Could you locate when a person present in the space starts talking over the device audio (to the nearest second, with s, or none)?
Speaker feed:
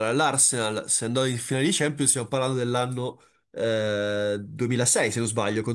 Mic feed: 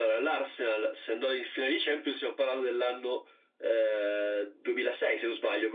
none